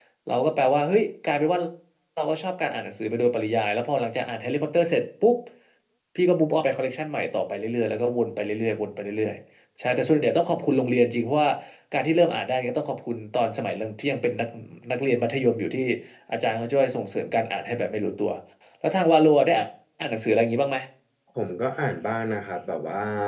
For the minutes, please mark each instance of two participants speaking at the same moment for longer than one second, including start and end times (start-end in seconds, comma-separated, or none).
none